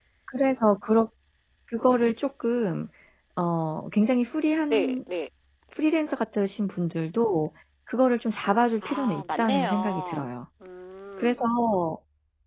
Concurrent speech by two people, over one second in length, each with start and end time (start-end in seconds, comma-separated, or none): 8.8-10.3